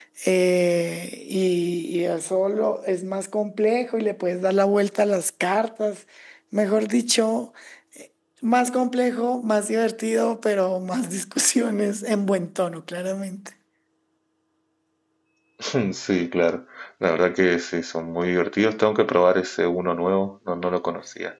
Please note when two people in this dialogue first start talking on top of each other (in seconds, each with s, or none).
none